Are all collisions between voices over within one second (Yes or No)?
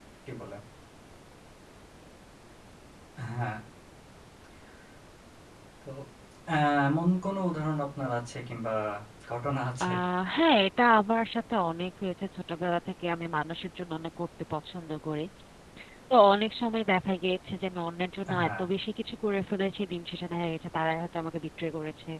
Yes